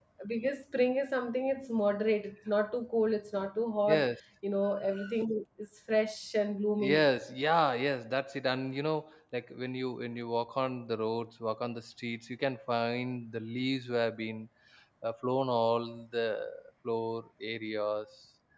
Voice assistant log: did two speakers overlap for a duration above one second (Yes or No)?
No